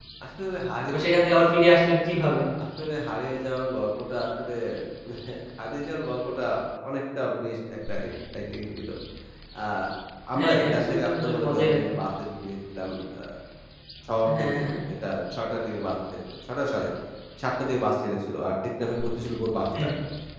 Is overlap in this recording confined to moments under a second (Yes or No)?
No